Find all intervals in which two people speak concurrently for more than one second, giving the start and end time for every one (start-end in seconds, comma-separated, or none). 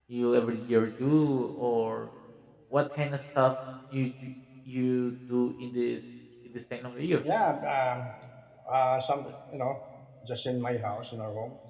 none